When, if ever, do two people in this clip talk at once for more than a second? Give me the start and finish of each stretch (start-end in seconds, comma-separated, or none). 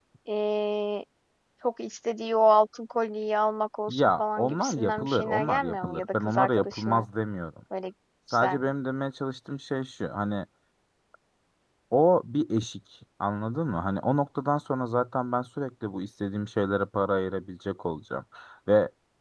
3.9-7.0